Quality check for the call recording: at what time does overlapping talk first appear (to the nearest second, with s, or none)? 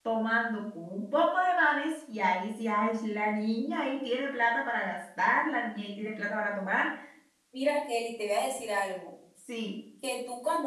none